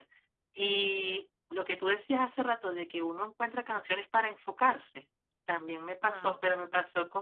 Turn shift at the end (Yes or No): No